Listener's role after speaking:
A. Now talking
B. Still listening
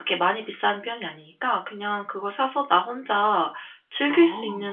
B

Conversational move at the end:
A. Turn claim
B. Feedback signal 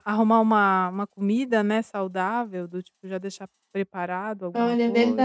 A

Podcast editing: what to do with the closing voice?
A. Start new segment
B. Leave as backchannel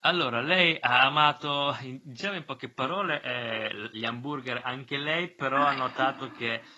B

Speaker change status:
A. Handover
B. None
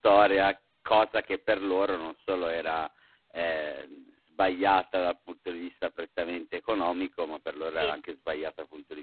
B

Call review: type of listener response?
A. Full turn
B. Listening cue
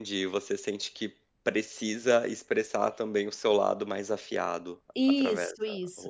A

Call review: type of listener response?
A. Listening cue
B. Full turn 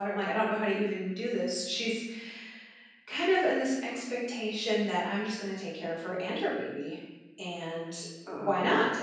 A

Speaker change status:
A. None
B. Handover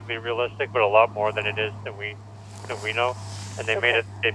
A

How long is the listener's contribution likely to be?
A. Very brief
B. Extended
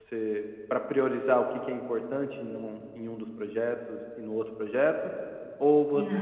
A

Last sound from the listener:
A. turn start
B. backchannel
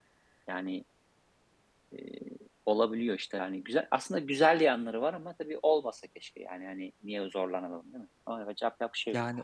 A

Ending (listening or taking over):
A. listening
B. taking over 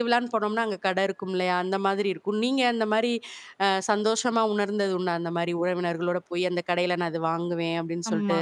B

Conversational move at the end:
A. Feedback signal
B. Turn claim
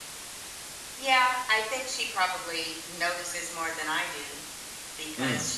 A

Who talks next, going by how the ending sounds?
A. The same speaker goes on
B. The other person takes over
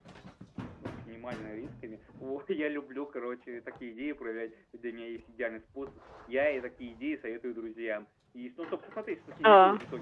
A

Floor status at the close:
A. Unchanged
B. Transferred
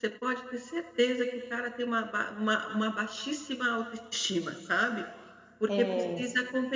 A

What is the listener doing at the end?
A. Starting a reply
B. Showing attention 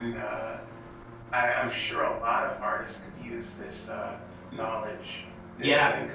A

